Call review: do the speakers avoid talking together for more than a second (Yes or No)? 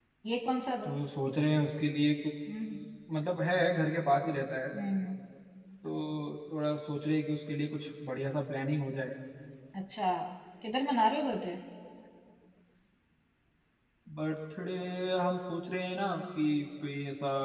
Yes